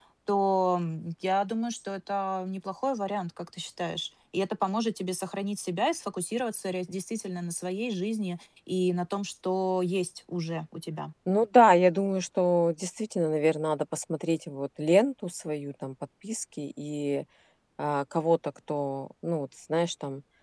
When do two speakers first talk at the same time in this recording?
none

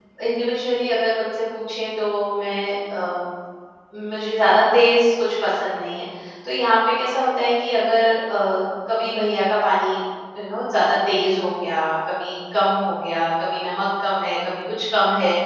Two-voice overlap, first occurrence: none

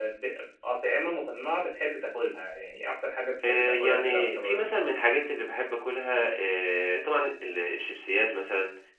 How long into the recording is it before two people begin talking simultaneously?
3.4 s

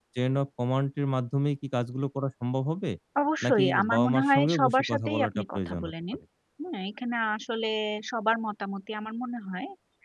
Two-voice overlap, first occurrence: 3.4 s

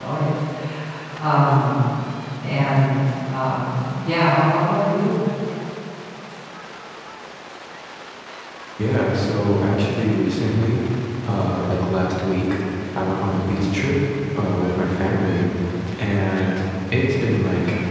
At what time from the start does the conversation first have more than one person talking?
none

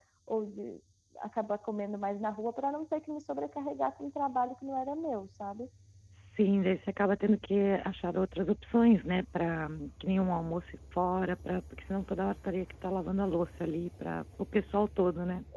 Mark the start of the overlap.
none

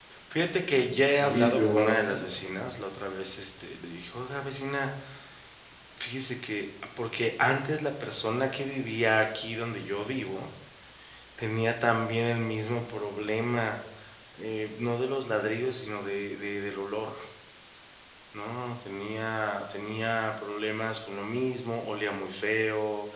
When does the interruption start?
0.7 s

